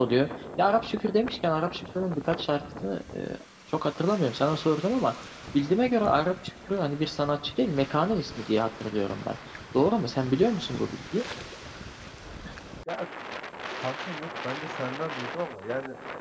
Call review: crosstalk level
none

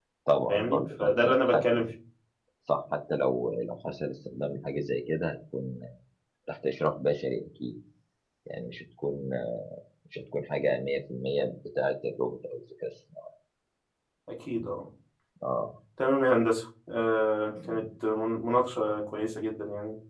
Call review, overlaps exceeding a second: present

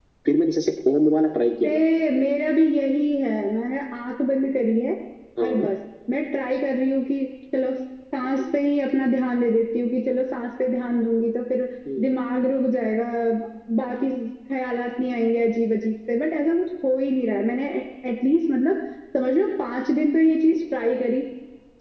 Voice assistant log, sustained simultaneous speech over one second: none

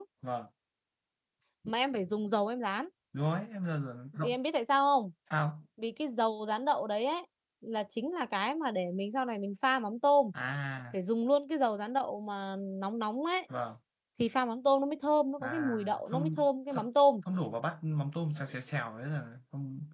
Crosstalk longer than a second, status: present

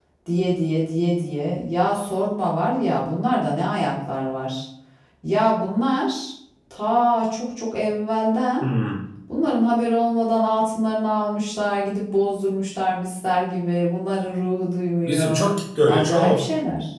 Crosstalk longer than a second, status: none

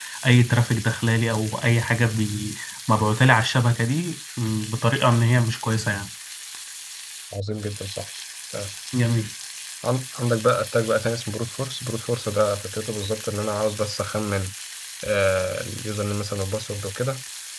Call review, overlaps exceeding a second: none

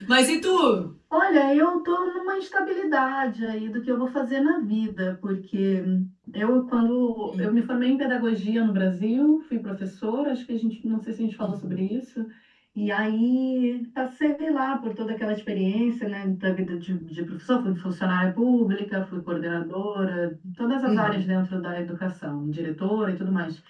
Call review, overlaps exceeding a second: none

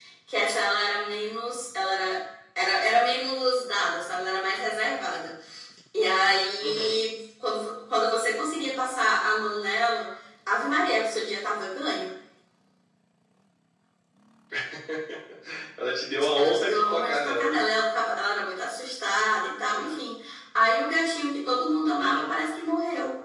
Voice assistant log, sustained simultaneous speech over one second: present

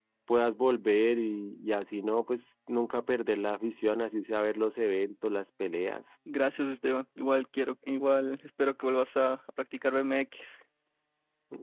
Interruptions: none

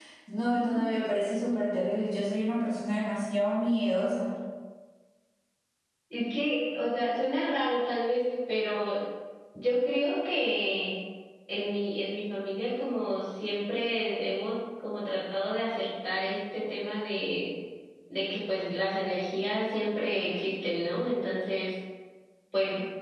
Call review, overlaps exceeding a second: none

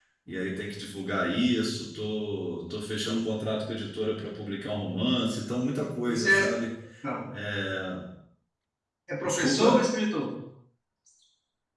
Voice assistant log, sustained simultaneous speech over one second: none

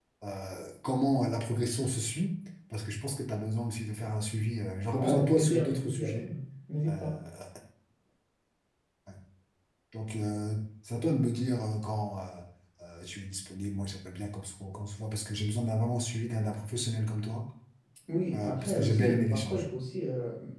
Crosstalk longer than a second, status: present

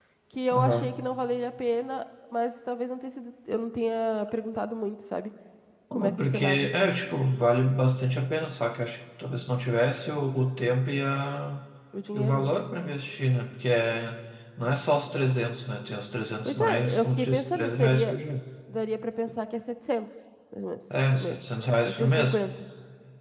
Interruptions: present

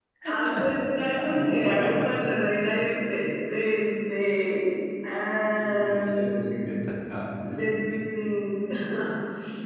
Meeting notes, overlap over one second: present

